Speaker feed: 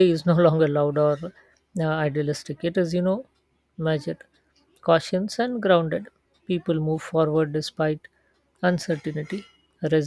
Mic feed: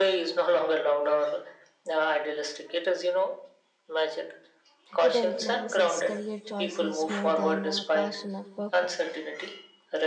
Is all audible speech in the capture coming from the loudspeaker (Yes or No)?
No